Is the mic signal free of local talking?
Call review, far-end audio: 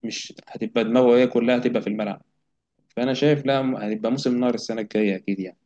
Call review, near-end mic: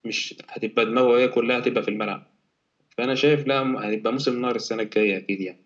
Yes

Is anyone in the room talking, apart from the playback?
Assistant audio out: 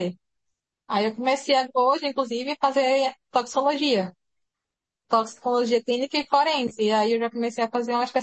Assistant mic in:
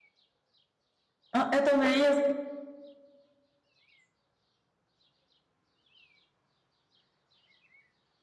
Yes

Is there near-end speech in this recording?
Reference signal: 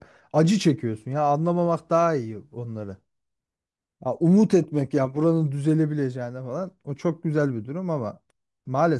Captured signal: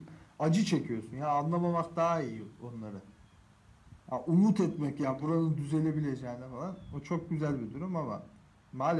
No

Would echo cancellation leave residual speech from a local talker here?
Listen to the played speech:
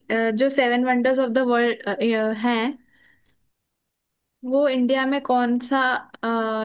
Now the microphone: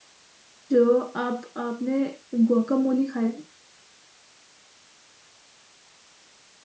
Yes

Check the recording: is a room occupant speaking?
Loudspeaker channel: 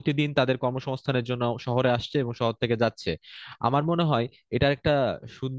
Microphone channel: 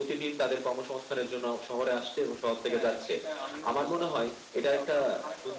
Yes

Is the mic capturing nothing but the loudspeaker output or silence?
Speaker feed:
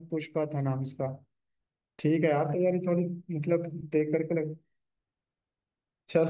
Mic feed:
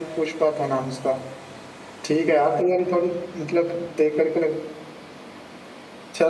Yes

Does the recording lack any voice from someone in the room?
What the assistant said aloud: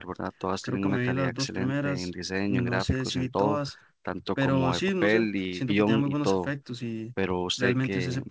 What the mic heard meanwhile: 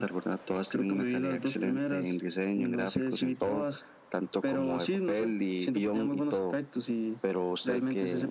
Yes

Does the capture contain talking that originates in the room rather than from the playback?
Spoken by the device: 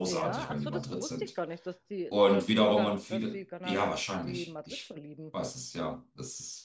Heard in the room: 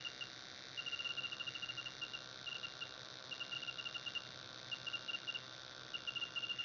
No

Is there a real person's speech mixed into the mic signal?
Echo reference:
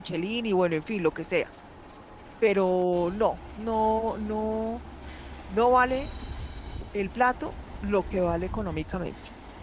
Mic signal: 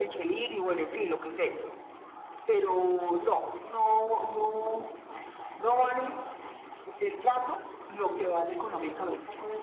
Yes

